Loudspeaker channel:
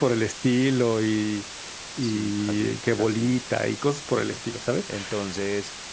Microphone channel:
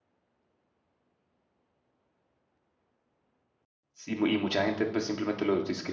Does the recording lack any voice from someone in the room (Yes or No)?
No